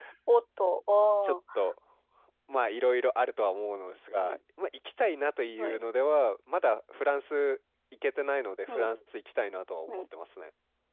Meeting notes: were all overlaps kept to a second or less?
Yes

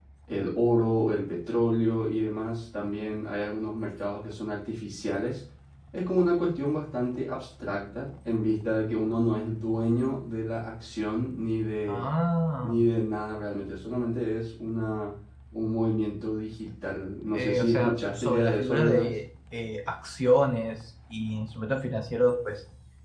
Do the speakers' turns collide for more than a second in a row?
Yes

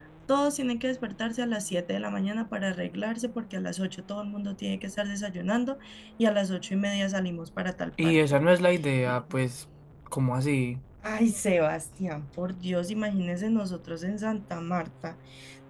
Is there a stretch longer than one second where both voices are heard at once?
No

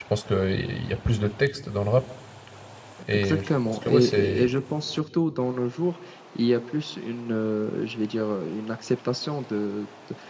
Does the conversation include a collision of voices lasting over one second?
Yes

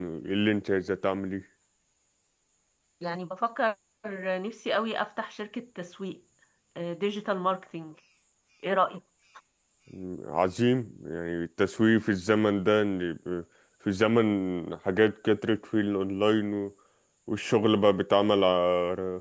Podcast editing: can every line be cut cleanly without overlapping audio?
Yes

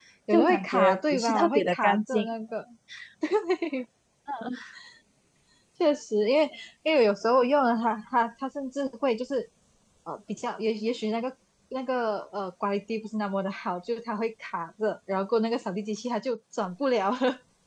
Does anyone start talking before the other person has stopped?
Yes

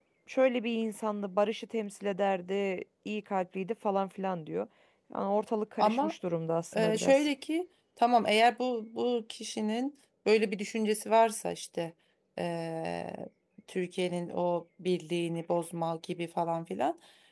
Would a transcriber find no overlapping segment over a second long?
Yes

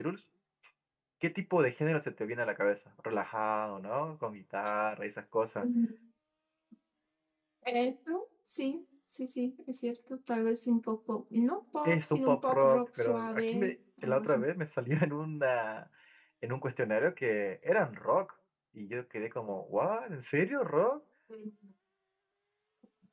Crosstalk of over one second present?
Yes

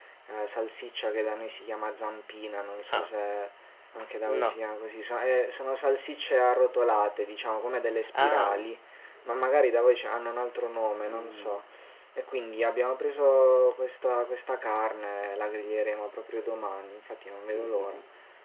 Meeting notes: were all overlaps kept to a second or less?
Yes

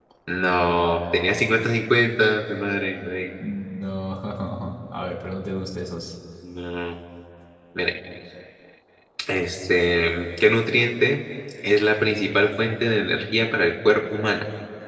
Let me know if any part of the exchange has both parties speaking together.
No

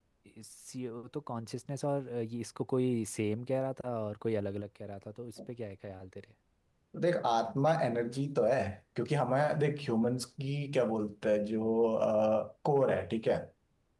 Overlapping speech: No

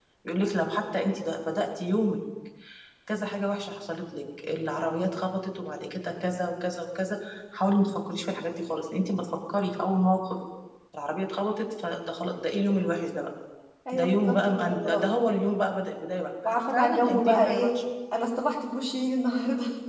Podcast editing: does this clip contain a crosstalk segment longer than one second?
Yes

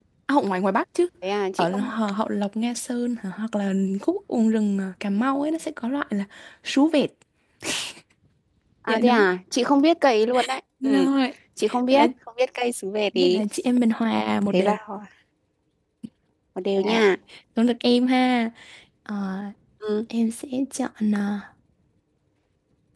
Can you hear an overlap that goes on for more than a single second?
No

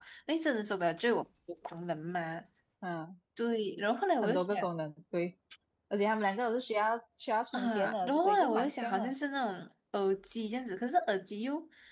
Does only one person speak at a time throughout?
No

